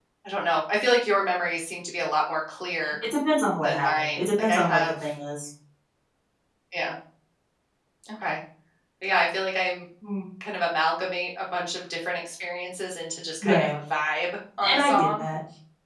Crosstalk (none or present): present